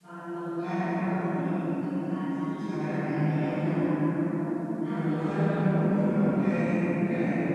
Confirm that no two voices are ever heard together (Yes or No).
No